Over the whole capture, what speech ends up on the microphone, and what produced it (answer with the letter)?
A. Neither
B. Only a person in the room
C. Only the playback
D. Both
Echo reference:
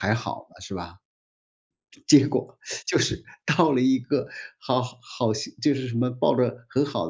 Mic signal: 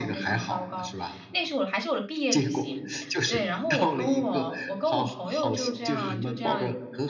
D